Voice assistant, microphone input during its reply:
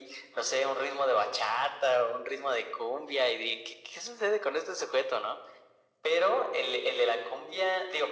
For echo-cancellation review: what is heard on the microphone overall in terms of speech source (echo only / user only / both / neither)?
echo only